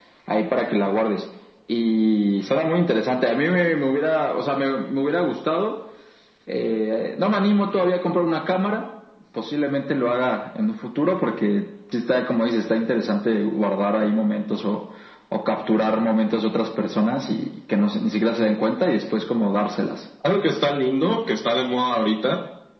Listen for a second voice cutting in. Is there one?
No

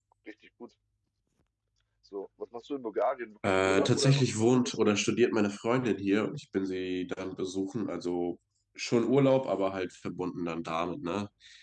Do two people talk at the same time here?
Yes, from 3.4 s

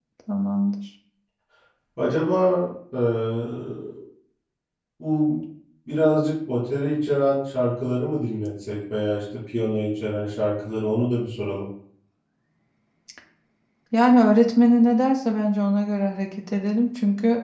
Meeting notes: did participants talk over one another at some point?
No

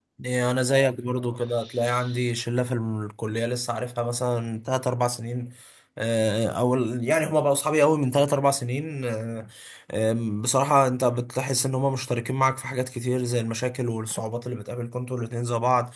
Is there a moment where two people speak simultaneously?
No

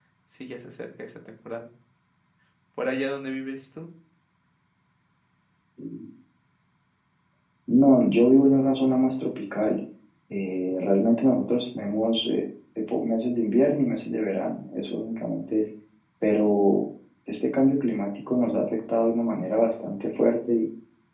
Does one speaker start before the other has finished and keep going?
No

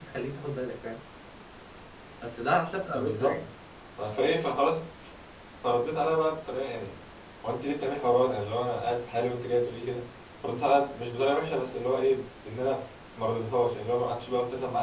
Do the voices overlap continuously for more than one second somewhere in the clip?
No

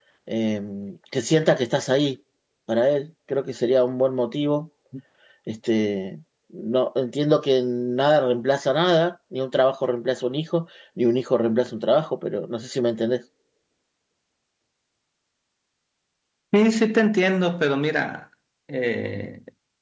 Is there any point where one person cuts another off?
No

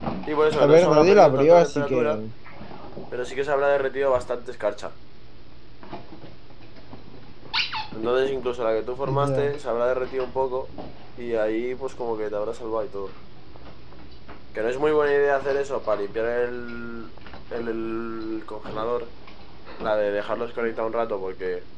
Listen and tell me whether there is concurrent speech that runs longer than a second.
Yes, from 0.6 s

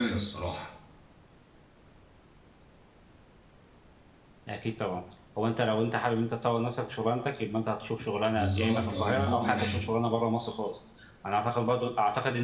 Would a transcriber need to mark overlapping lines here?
Yes, from 8.3 s

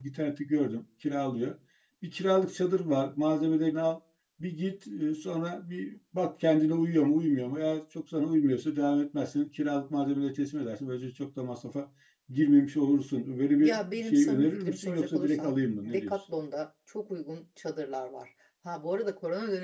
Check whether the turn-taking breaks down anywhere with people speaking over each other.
Yes, from 13.6 s

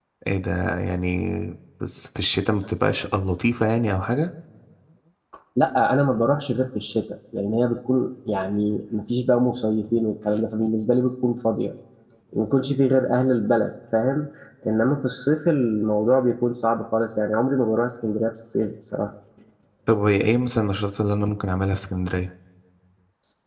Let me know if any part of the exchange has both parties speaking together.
No

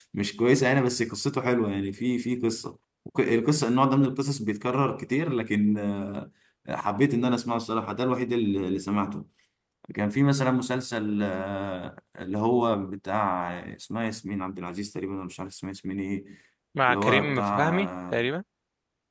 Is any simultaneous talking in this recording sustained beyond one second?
Yes, from 16.9 s

